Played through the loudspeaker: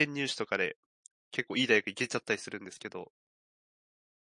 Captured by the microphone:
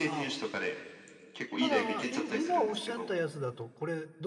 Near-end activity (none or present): present